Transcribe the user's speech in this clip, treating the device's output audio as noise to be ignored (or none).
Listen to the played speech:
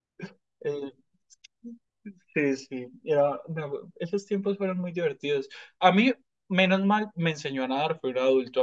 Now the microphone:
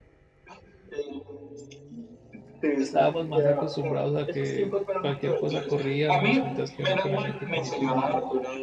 Estábamos más acostumbrados a que cualquier cosa corríamos, mientras que uno con alguien pequeñito es muy duro.